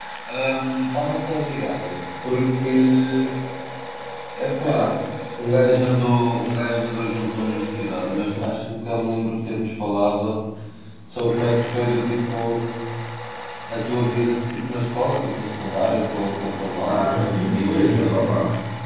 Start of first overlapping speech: 16.8 s

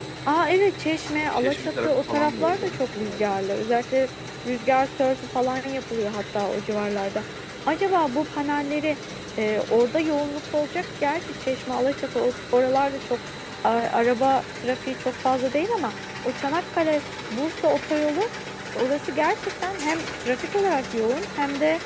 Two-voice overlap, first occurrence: 1.4 s

